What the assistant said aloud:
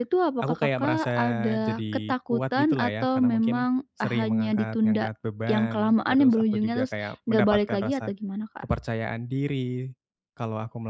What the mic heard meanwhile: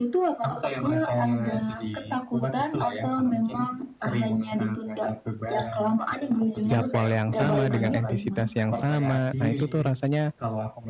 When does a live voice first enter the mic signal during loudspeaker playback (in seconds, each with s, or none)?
6.7 s